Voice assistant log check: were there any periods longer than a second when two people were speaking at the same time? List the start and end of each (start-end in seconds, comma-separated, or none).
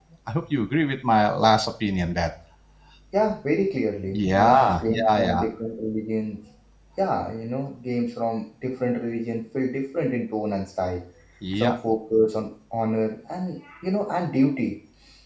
4.1-5.4